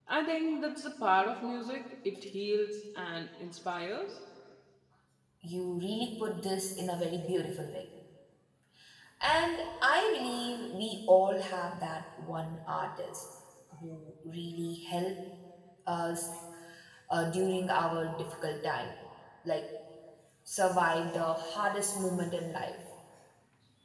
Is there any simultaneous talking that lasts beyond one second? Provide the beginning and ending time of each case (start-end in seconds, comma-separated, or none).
none